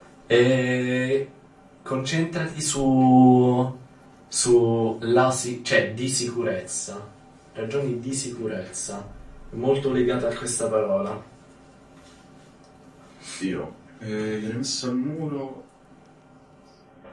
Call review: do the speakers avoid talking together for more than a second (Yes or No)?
Yes